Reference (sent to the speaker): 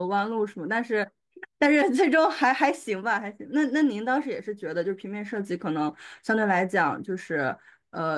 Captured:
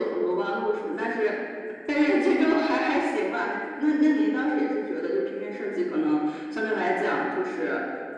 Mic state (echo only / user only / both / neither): echo only